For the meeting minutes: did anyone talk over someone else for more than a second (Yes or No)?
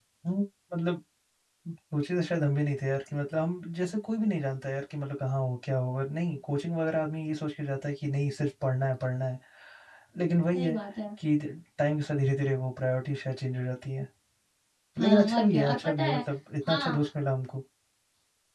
Yes